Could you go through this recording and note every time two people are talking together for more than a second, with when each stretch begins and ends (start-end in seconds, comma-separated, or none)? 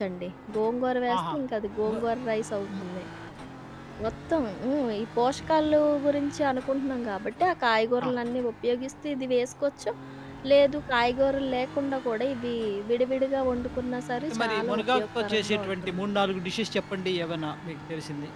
14.2-16.0